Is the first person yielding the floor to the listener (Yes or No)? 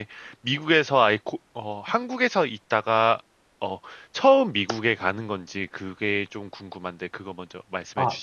Yes